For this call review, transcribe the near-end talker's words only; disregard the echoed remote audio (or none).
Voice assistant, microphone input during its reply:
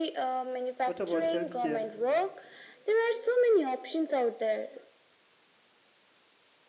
What about healthcare?